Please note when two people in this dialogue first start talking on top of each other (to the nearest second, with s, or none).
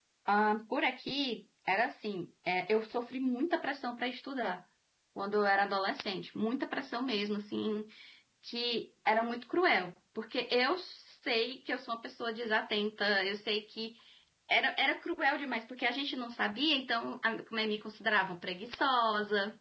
none